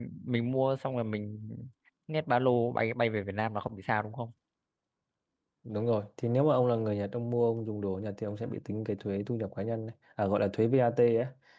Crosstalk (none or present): none